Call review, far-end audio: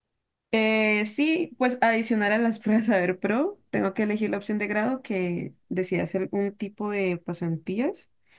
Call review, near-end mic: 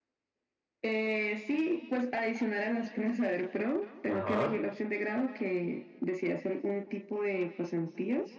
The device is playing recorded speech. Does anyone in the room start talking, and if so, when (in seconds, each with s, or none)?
4.1 s